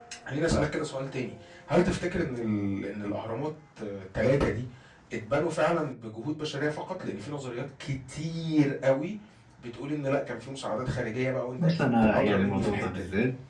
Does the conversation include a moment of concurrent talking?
Yes, from 11.6 s

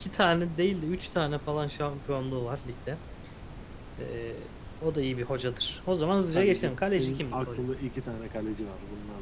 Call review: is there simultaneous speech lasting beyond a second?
Yes, from 6.3 s

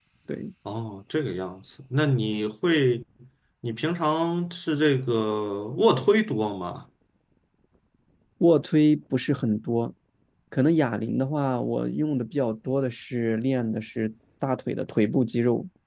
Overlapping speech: No

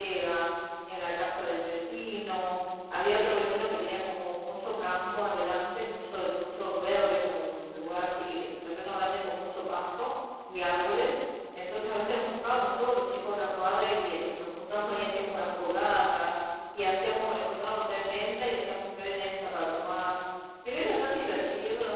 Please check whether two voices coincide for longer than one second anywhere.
No

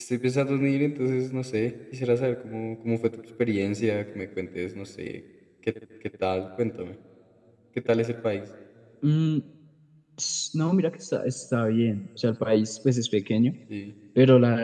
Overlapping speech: No

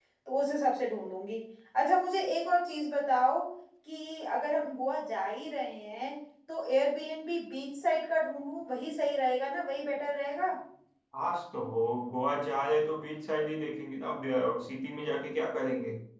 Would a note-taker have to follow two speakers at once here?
No

